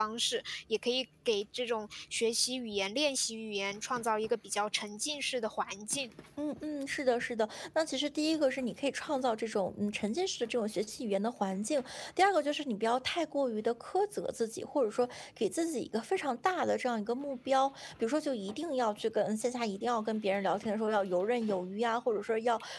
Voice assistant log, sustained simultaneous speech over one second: none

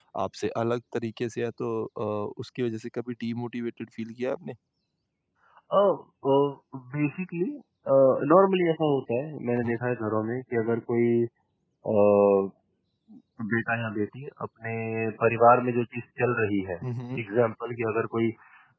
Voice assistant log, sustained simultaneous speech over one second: none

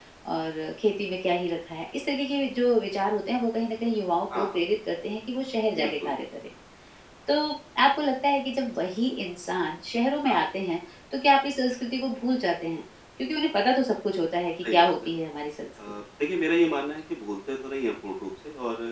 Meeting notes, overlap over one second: none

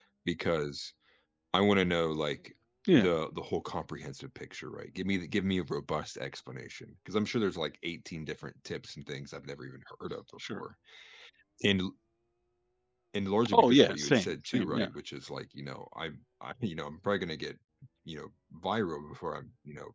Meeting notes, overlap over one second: present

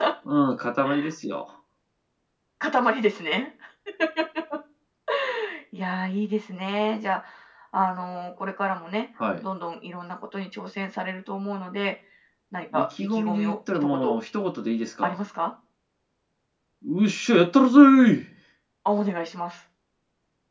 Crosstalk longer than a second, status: present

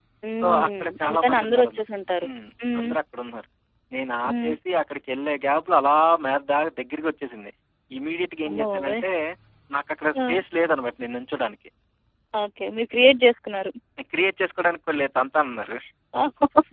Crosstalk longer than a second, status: present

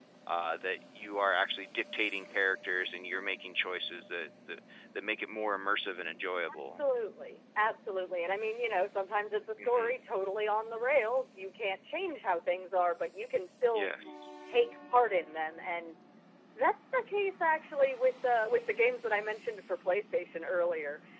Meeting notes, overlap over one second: none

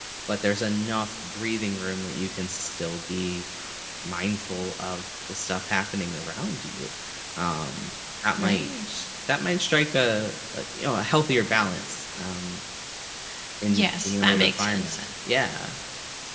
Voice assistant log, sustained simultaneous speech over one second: present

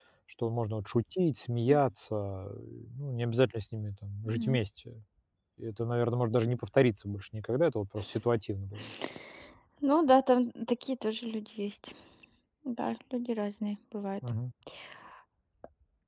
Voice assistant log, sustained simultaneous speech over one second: none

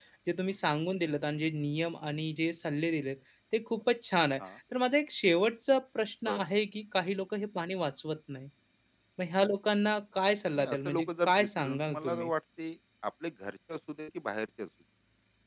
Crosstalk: present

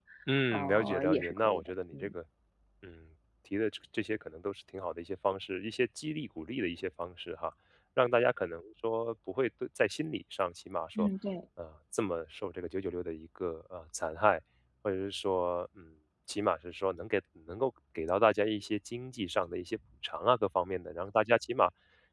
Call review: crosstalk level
present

